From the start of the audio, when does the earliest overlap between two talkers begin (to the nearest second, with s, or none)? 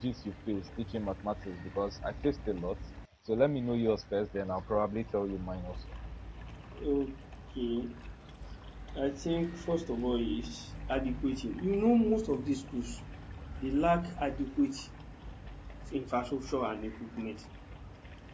none